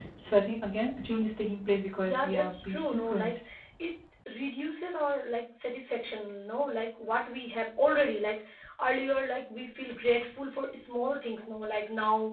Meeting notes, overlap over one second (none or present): present